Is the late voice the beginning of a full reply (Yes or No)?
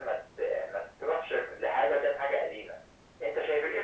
Yes